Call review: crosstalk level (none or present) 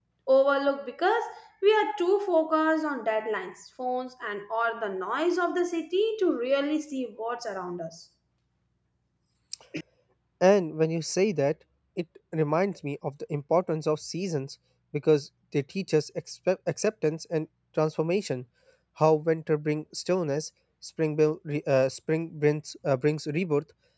none